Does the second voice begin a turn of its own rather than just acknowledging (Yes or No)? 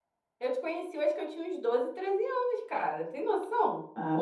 Yes